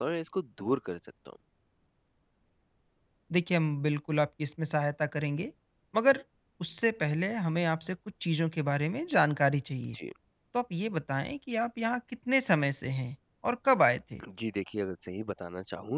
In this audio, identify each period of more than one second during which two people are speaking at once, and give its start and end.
none

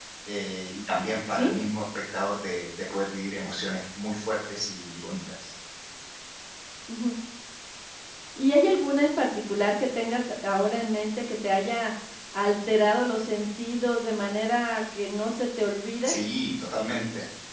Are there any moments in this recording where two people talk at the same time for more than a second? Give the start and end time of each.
none

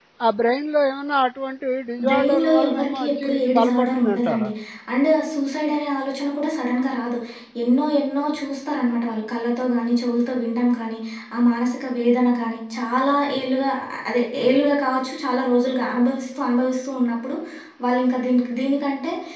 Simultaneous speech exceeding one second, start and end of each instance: 2.1-4.5

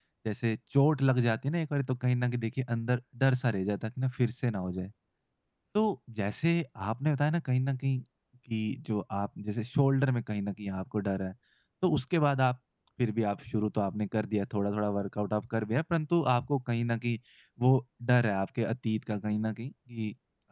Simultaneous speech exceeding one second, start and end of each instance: none

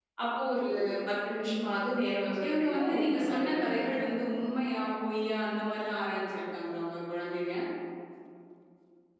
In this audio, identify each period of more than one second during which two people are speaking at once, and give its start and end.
2.4-3.9

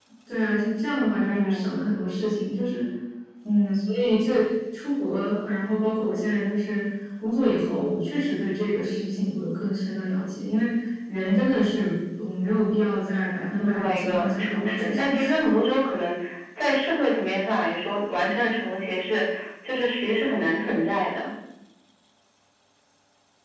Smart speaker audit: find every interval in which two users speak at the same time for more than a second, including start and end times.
13.7-15.3

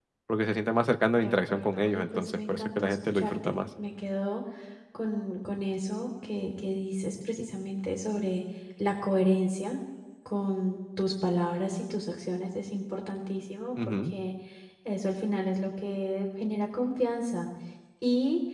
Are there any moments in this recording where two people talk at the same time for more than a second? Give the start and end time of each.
1.1-3.6

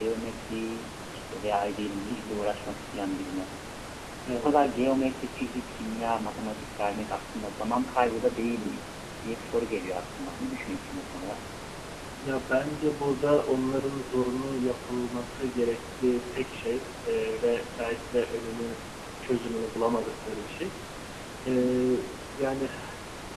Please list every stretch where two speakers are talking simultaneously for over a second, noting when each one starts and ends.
none

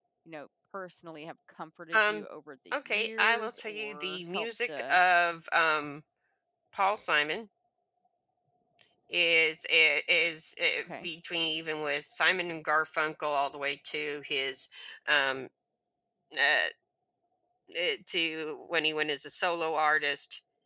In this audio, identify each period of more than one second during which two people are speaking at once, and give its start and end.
2.7-5.0

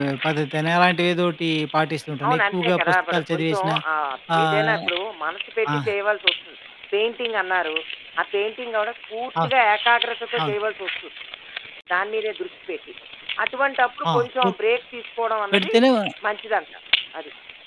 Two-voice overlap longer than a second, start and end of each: 2.2-3.7

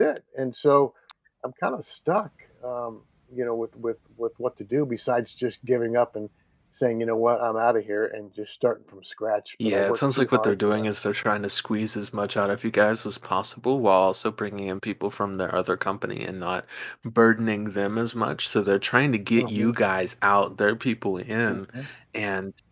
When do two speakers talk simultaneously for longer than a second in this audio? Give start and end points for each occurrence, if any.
9.6-10.8

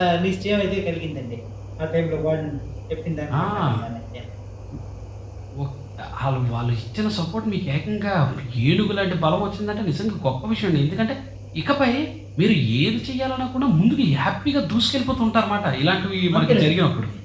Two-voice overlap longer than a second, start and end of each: none

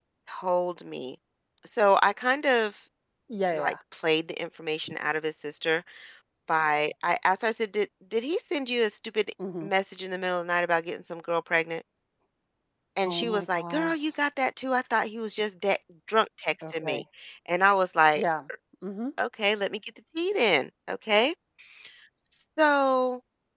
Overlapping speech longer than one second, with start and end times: 13.1-14.2

